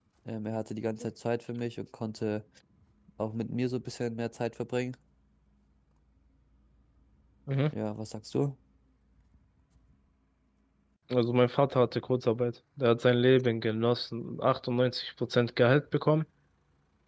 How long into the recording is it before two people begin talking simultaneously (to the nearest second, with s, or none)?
none